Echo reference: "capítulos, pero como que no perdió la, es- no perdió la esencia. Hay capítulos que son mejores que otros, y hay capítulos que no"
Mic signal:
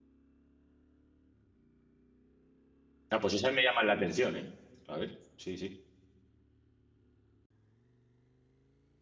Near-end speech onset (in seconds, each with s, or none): 3.1 s